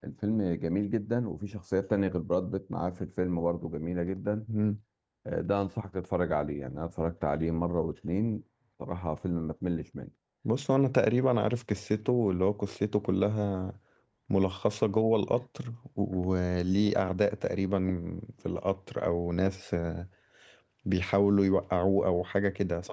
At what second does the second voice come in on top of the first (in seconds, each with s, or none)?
none